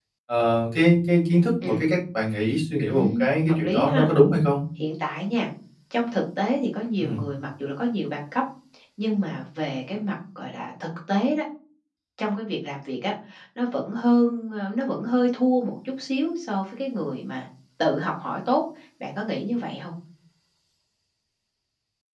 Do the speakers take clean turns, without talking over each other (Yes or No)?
No